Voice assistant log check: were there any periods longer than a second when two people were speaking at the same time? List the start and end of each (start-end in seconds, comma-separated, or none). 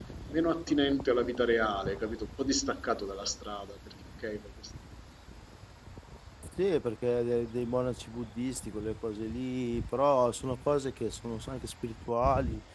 none